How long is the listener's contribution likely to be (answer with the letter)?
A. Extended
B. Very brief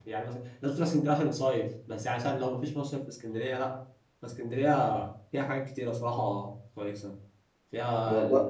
B